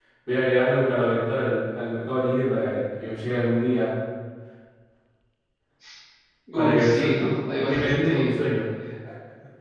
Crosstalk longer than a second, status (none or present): present